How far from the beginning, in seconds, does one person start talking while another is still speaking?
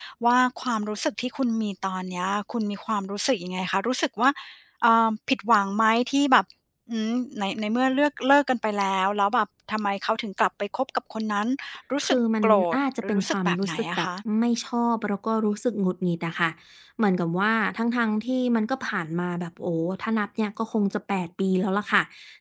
12 s

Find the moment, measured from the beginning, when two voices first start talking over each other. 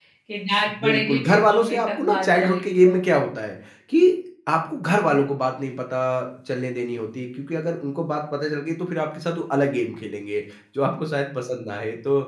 1 s

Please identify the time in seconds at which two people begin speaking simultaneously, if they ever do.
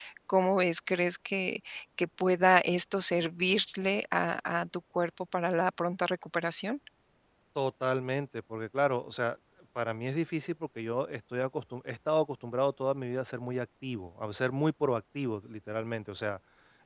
none

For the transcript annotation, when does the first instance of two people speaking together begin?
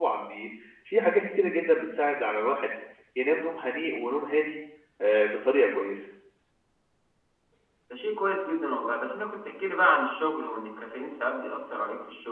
none

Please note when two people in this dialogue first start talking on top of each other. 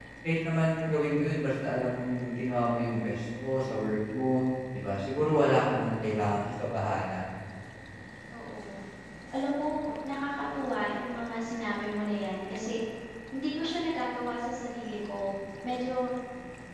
none

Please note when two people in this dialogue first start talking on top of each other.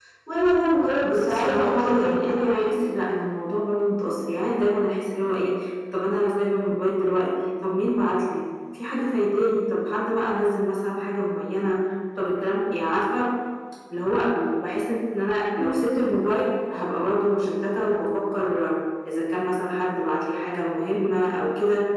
1 s

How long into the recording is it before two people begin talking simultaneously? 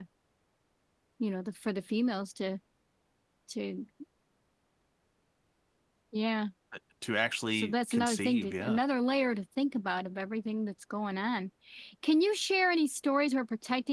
8 s

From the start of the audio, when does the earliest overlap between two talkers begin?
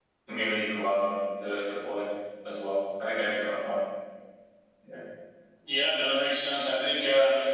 none

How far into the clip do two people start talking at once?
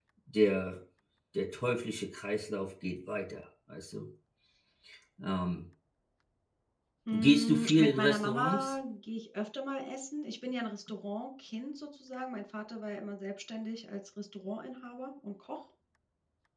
7 s

